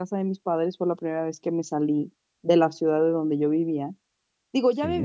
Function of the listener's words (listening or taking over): listening